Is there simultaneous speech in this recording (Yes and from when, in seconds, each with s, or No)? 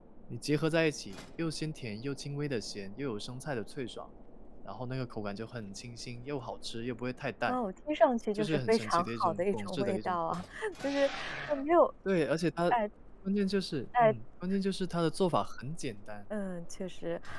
Yes, from 8.3 s